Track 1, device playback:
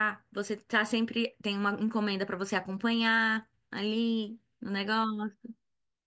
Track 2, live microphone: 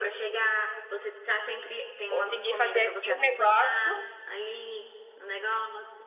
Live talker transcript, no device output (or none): Consegui fazer aqui um negócio